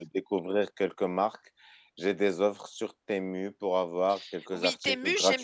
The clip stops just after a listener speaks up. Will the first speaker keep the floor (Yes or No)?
No